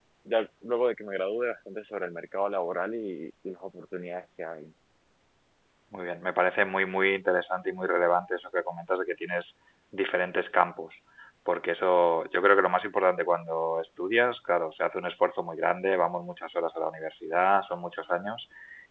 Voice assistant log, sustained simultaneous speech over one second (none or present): none